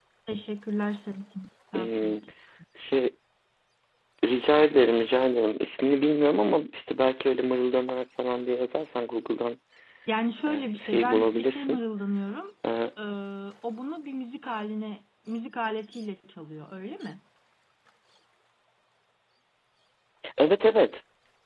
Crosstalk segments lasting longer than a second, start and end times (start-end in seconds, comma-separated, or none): 10.5-11.8